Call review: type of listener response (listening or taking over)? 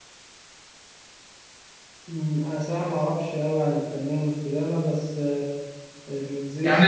taking over